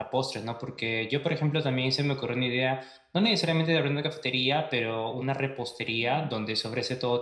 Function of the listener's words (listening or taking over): listening